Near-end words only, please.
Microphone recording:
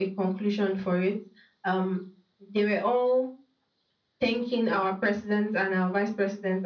none

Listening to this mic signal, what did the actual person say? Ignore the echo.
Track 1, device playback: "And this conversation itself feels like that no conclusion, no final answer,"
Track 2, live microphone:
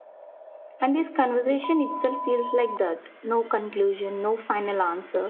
none

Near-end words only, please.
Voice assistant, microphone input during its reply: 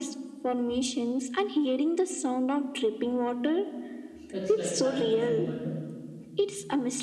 It's like paragliding, but

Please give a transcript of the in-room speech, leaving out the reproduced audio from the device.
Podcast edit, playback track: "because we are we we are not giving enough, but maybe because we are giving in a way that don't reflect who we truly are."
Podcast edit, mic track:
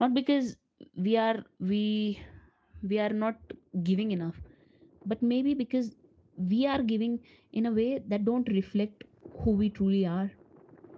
none

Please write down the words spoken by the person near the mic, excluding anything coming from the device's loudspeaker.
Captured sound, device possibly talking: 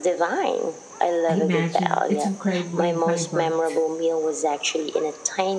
I imagine it's incredibly vibrant.

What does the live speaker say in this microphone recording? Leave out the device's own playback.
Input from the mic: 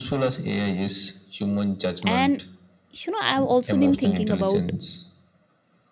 And, you know, I've also been thinking about

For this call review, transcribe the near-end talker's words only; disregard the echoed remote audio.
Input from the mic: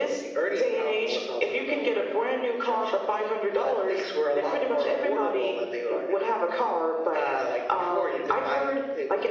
none

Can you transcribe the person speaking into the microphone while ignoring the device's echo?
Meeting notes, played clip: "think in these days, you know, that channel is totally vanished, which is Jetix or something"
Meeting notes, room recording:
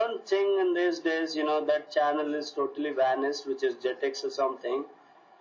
none

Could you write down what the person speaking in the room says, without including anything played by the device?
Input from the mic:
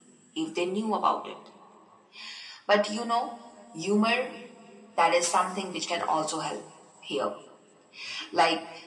none

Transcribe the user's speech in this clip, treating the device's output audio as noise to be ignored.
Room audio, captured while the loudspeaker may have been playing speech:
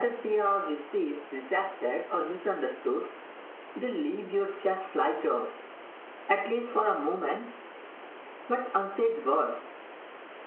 none

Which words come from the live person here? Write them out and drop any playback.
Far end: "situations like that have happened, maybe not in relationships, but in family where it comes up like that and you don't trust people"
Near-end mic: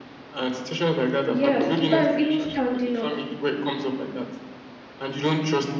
Yes, sometimes even standing up

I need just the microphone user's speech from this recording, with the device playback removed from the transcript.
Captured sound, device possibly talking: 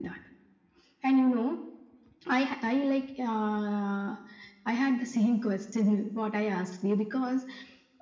none

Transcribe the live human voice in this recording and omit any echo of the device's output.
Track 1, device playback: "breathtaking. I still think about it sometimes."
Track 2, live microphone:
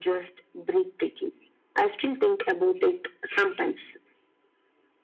none

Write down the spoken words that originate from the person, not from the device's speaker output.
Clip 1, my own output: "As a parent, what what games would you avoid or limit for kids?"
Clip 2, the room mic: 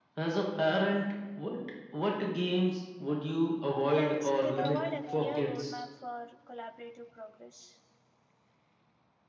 Plus, they provide a clear roadmap for collaborative progress.

